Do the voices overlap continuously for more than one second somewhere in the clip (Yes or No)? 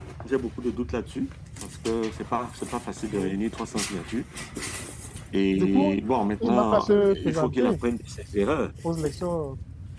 Yes